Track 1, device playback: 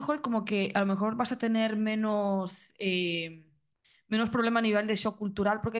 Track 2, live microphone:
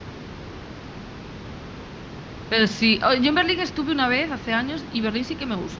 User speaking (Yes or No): Yes